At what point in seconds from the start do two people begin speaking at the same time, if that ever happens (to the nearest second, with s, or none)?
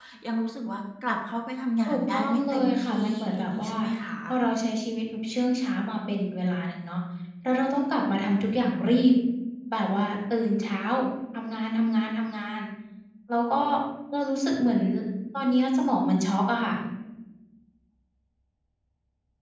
2 s